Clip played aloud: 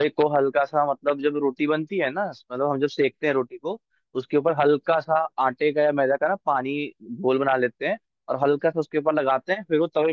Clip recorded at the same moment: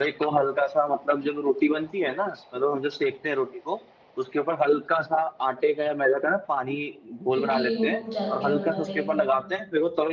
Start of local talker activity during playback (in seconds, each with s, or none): 7.3 s